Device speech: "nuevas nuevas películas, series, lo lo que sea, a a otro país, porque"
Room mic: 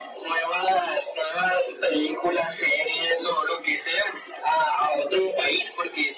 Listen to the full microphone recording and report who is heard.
echo only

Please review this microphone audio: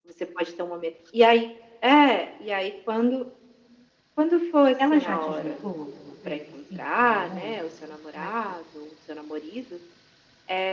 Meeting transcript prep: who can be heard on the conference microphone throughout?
both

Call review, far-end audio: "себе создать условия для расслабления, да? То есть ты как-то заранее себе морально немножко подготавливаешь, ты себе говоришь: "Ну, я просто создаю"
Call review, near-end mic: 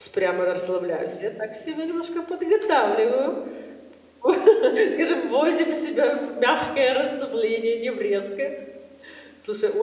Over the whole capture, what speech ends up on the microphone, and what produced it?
user only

